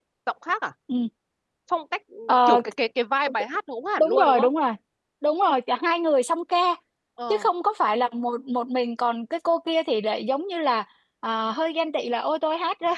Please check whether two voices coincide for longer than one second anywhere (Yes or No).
No